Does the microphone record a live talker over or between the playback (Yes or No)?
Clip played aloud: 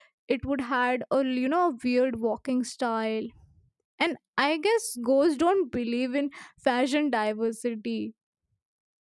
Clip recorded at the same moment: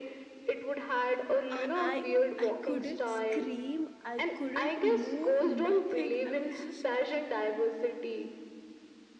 Yes